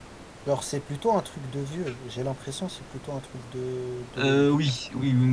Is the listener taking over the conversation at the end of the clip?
Yes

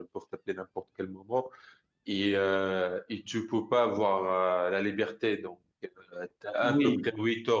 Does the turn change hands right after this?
No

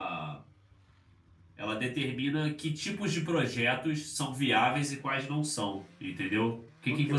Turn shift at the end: Yes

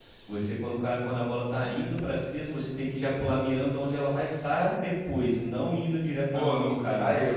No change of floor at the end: No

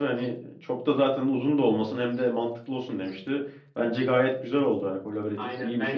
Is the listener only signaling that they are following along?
No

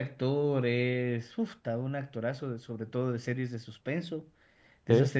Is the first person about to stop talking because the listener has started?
No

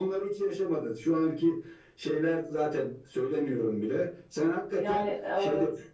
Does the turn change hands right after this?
No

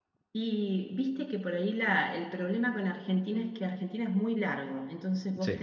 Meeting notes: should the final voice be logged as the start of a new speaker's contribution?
No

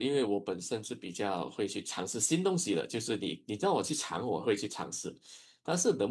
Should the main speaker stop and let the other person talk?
No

